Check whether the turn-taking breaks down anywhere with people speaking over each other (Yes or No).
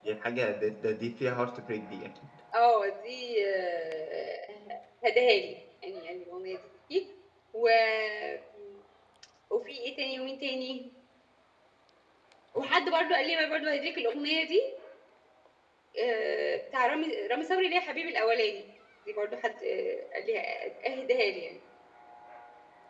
No